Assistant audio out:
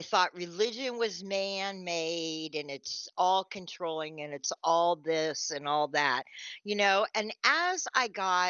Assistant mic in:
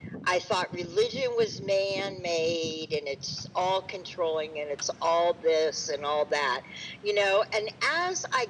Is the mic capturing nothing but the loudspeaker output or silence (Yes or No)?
Yes